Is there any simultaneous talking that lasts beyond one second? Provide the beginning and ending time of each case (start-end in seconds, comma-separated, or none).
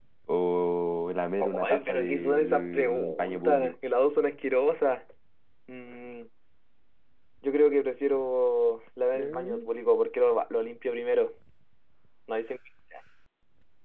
1.6-3.7